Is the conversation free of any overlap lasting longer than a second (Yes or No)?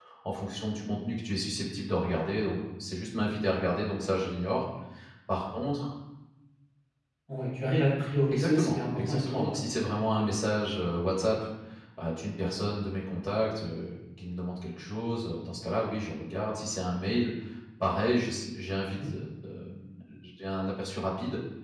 No